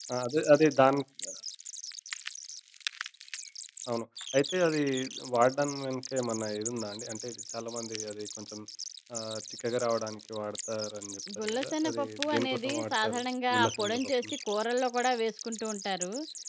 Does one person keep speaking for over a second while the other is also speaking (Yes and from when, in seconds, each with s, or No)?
Yes, from 11.3 s